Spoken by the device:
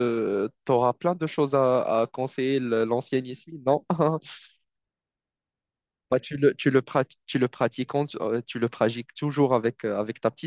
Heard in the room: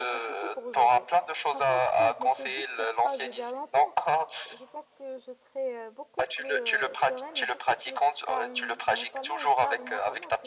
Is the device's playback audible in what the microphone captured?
Yes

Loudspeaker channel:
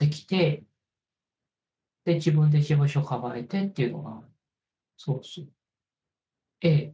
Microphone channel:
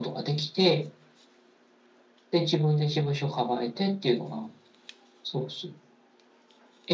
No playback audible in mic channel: No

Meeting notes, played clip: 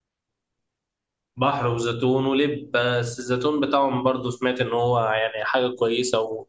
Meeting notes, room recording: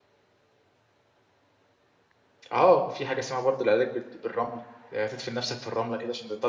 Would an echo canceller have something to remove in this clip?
No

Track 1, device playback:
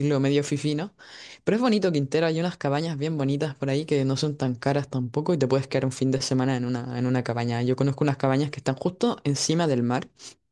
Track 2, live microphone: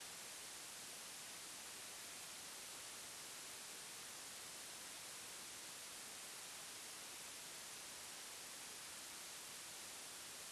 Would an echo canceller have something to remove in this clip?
No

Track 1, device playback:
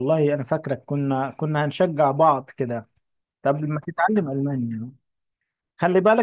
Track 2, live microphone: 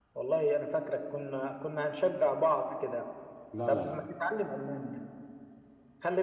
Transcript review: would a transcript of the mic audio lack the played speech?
No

